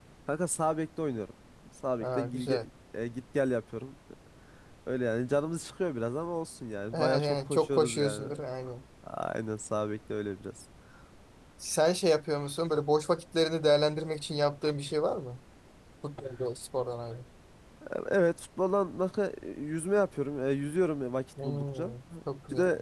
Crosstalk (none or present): present